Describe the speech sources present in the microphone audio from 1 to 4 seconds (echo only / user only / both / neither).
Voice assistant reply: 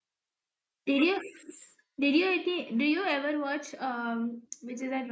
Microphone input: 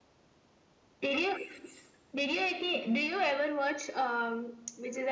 echo only